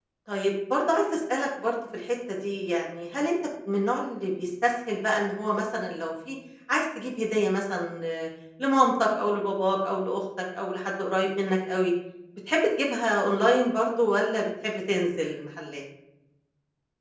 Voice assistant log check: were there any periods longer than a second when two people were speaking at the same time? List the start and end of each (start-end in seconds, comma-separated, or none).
none